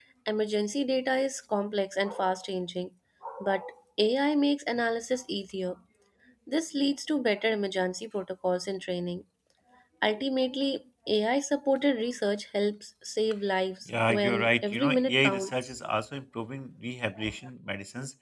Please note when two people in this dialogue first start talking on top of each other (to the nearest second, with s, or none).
14 s